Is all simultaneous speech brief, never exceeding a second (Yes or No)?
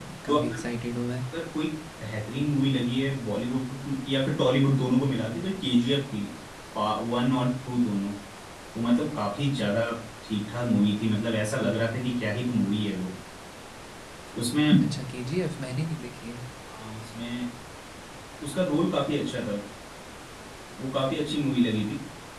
Yes